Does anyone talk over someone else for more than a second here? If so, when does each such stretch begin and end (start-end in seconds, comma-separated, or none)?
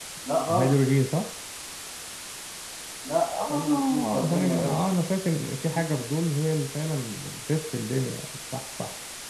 3.5-4.8